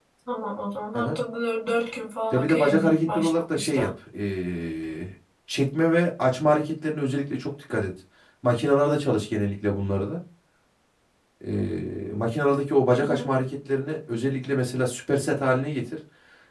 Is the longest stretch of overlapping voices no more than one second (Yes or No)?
No